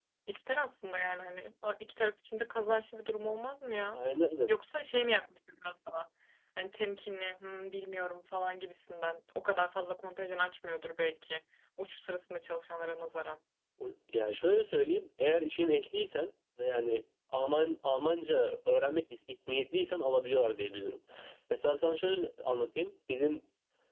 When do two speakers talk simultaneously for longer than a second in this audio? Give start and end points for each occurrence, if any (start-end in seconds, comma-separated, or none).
none